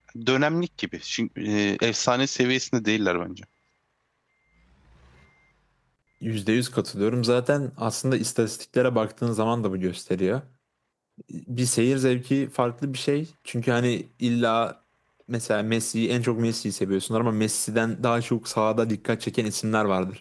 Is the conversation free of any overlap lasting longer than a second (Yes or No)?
Yes